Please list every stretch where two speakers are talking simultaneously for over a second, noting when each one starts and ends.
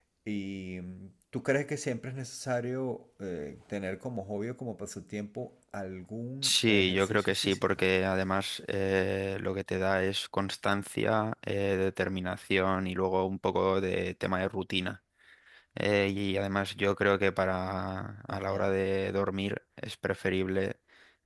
6.4-7.8

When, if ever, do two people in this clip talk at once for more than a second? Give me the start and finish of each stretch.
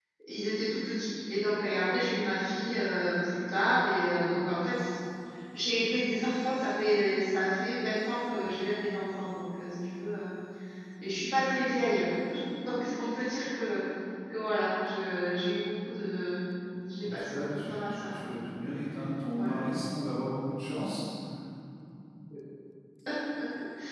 17.0-18.3

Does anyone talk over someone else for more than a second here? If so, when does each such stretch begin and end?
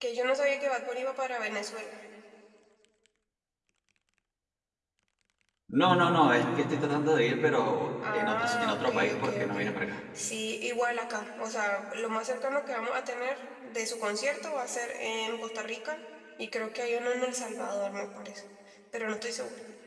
8.1-9.6

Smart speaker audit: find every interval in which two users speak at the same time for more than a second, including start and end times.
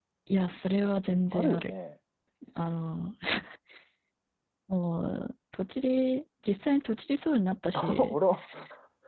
none

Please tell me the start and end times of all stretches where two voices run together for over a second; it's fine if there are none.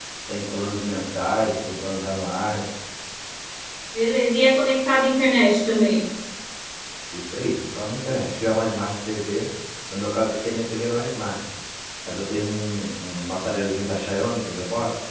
none

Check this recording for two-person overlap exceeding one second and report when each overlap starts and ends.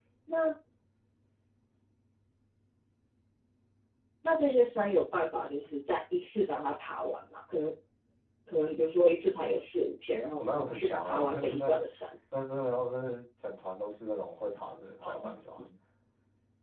10.4-11.8

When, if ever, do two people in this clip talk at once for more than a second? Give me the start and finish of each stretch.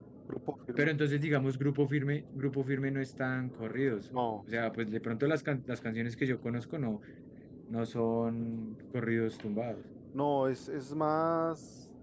none

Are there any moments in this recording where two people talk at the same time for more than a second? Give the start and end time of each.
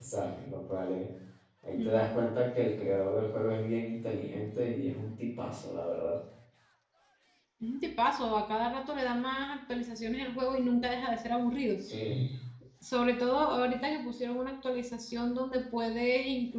none

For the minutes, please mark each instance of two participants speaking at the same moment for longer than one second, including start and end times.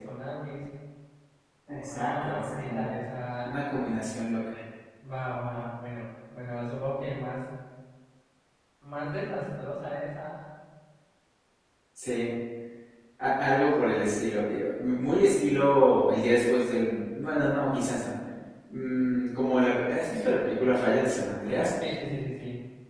1.7-2.9

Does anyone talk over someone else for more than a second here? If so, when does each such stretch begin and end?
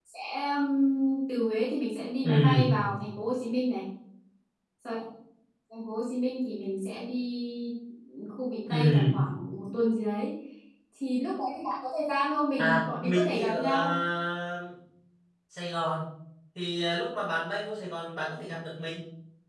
12.6-13.9

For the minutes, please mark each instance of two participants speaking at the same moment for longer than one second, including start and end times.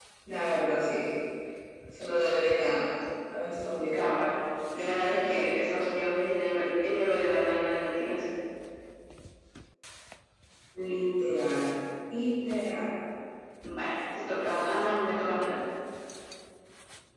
none

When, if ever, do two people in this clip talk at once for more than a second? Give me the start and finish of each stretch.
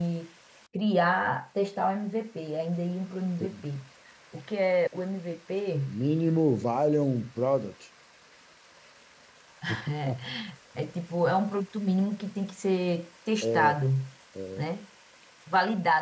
none

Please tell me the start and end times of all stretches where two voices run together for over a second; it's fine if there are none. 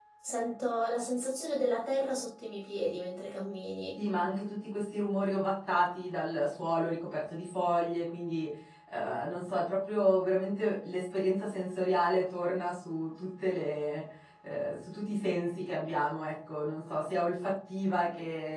none

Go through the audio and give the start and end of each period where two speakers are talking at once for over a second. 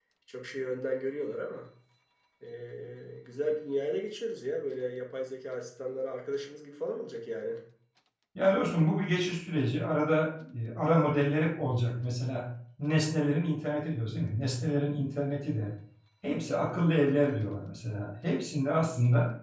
none

